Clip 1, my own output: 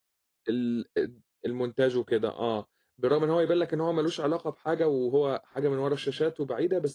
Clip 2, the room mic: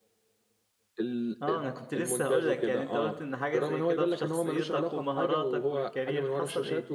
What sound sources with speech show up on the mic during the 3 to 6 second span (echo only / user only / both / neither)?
both